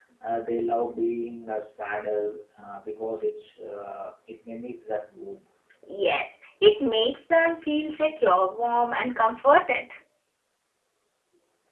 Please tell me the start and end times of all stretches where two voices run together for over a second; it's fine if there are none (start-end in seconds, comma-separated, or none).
none